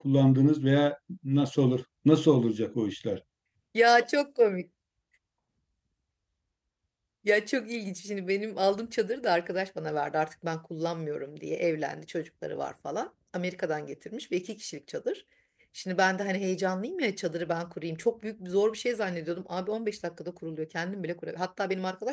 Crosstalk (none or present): none